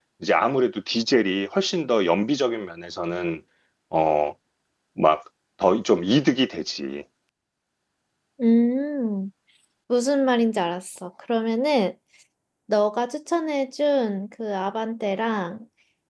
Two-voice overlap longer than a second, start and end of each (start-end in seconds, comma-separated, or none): none